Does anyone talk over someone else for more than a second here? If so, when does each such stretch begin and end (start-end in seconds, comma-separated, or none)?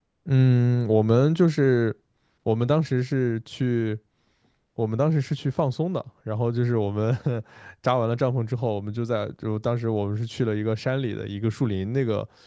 none